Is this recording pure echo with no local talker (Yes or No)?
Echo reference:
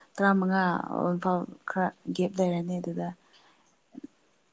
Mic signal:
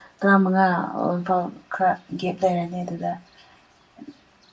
Yes